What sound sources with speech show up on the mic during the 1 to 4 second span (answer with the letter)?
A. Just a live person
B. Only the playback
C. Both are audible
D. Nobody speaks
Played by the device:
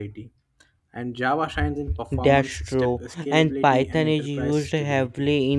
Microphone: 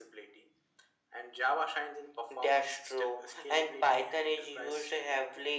B